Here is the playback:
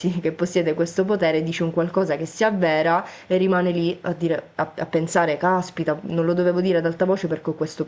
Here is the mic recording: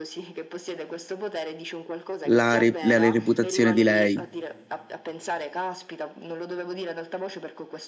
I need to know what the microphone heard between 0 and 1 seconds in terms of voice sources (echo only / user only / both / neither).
echo only